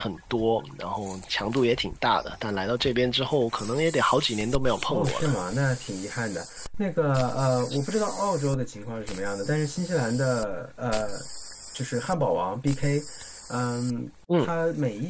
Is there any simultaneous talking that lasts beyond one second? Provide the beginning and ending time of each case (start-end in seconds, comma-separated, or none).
none